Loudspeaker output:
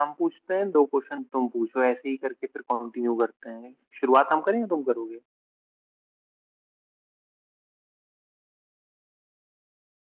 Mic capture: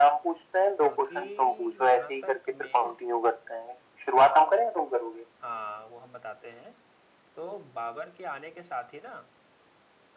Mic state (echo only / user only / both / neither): both